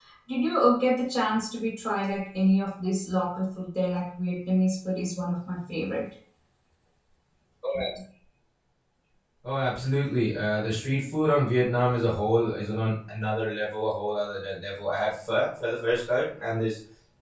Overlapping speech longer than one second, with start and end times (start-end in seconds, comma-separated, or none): none